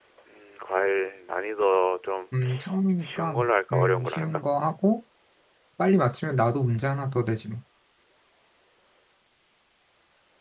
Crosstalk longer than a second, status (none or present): present